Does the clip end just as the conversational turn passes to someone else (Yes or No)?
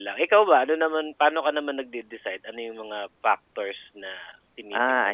Yes